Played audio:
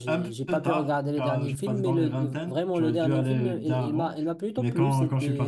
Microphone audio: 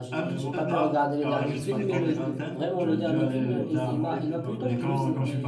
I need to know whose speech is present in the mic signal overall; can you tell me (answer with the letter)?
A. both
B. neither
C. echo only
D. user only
A